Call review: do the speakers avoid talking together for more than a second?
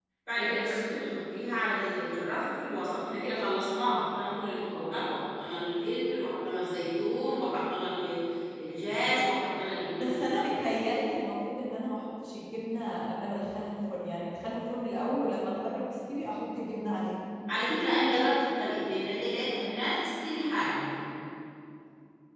Yes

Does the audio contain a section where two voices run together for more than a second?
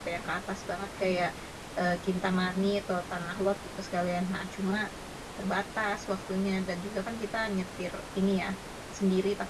No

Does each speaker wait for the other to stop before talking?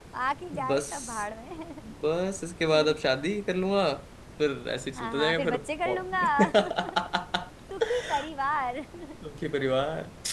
No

